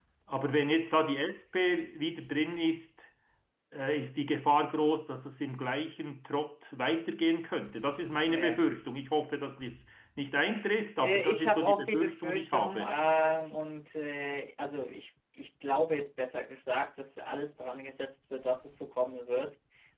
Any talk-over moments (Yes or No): Yes